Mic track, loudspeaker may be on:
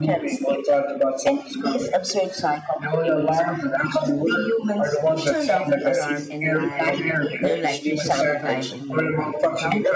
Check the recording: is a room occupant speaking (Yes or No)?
Yes